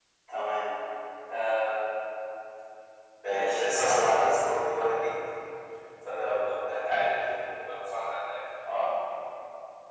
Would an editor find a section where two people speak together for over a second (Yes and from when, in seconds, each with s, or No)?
Yes, from 3.3 s